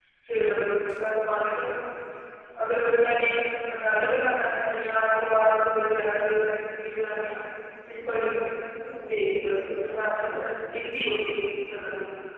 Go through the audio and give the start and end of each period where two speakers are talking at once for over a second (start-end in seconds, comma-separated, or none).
none